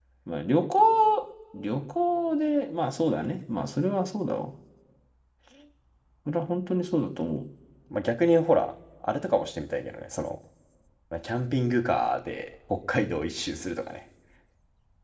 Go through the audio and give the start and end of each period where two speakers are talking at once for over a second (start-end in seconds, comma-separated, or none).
none